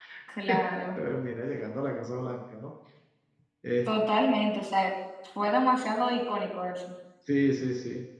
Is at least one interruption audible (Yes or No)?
No